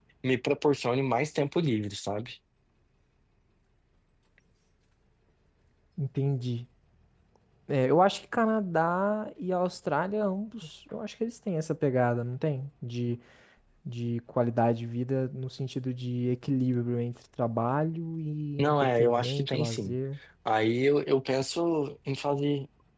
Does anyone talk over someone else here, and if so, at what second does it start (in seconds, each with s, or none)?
18.6 s